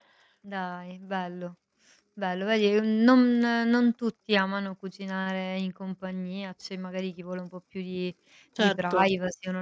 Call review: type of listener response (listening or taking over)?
listening